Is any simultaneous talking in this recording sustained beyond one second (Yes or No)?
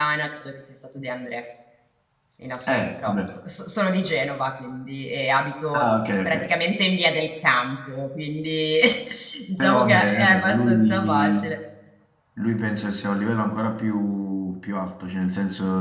Yes